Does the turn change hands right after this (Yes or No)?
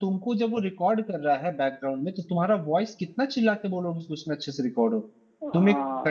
No